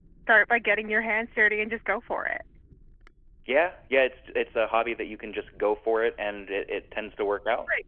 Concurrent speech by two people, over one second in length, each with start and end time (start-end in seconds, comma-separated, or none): none